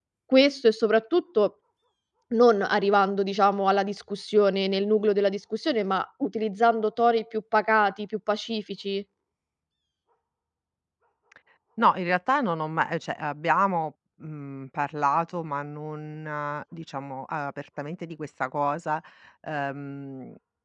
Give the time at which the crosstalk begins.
none

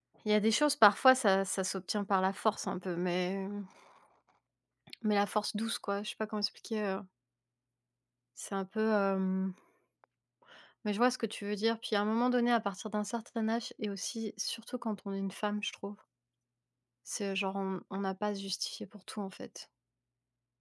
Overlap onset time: none

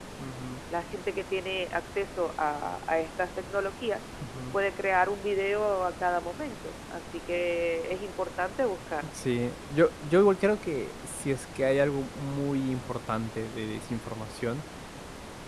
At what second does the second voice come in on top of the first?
none

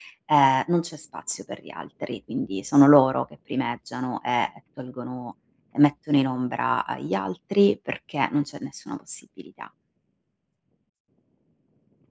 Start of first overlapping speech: none

